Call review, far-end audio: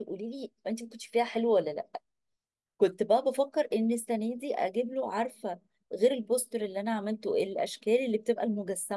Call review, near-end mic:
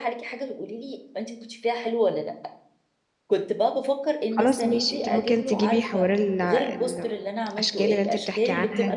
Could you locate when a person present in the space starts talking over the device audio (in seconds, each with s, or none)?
4.3 s